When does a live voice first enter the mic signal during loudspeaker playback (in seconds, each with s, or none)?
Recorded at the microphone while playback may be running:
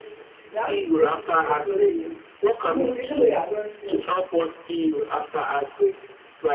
0.5 s